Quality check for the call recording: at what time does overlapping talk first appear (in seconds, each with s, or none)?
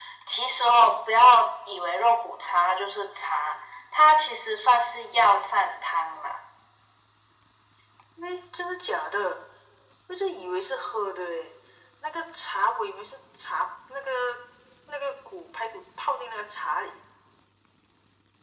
none